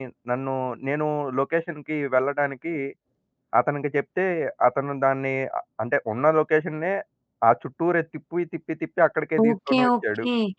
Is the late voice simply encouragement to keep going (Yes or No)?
No